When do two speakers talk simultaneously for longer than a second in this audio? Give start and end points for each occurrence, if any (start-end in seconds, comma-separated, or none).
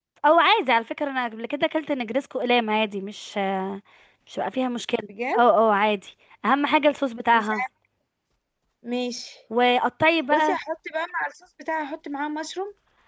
none